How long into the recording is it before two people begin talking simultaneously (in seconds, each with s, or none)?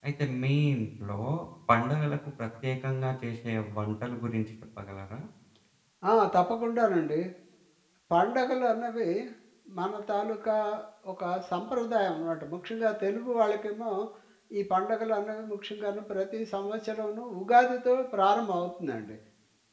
none